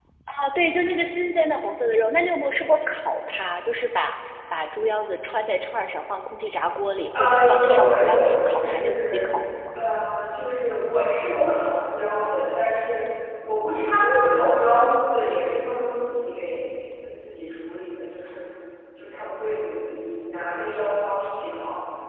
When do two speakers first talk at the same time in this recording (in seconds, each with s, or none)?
7.1 s